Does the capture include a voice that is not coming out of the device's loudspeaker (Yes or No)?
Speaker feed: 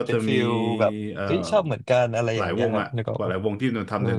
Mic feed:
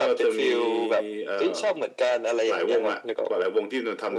No